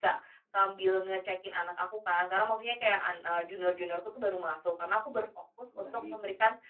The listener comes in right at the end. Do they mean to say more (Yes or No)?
No